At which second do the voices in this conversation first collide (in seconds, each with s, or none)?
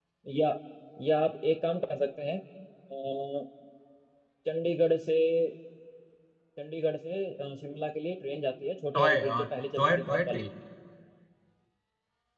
8.9 s